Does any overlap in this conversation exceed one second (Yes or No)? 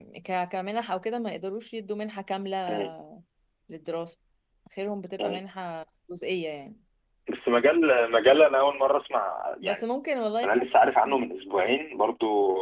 No